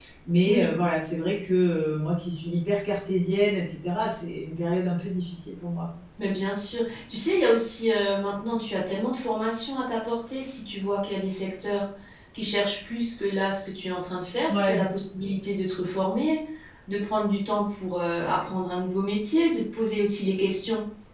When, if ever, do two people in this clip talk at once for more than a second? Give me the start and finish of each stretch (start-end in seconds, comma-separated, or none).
none